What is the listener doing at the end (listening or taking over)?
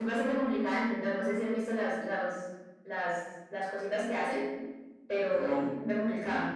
taking over